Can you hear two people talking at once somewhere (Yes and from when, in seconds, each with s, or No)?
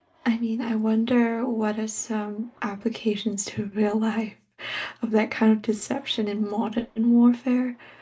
No